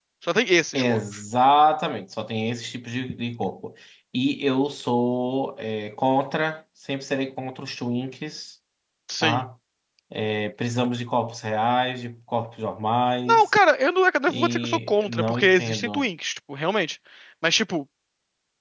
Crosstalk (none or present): present